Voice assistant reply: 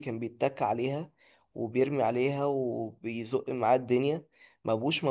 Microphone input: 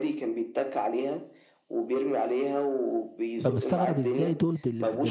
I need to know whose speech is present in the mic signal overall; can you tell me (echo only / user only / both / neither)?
both